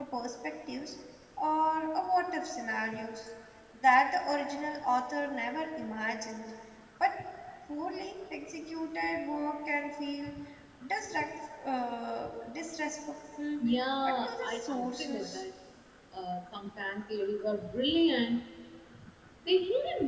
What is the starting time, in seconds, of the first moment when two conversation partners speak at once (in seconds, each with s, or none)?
14.0 s